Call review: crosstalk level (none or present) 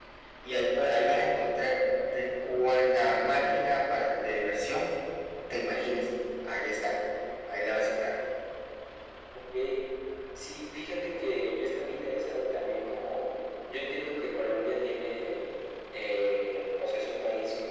none